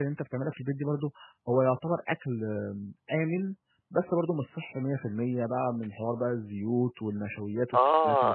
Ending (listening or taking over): taking over